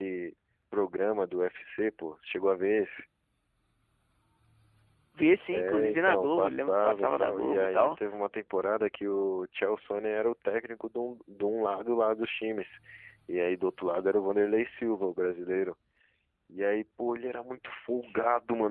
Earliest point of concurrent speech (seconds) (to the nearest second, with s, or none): 6 s